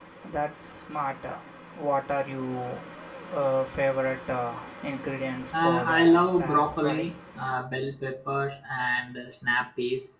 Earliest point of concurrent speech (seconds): 5.5 s

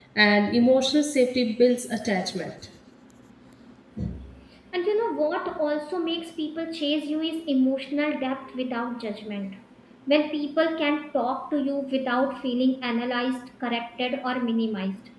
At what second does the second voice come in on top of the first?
none

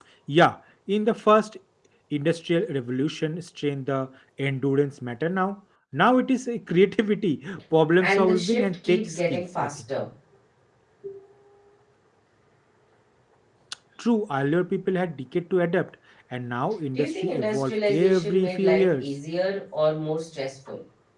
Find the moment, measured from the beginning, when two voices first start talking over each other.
8.0 s

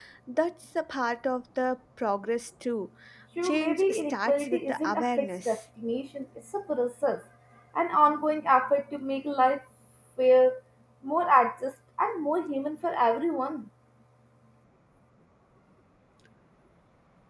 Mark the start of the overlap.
3.4 s

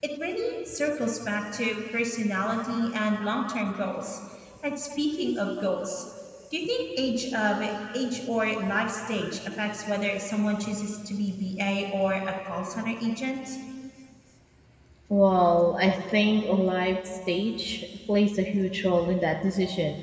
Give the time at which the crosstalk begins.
none

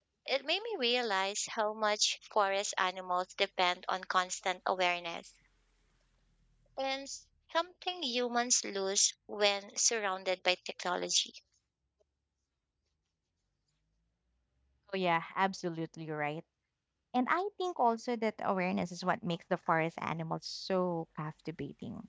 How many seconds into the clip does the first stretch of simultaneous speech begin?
none

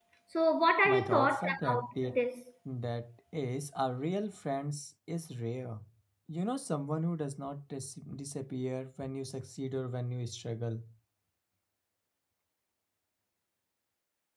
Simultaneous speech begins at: 0.8 s

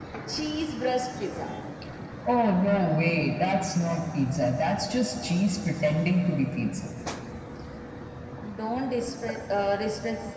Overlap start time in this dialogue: none

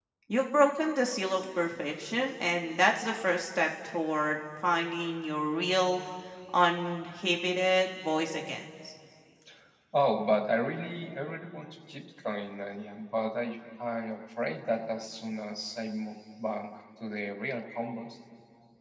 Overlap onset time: none

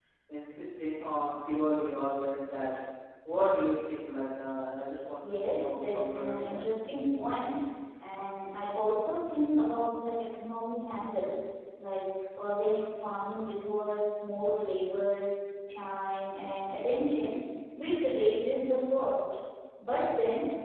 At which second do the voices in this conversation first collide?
5.2 s

